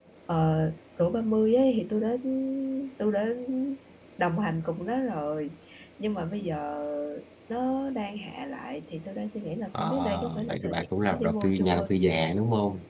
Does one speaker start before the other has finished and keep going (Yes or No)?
Yes